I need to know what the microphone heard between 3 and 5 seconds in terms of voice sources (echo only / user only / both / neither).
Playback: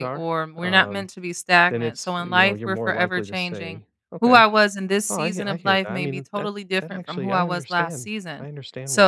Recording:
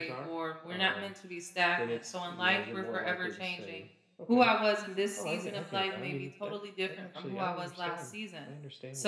echo only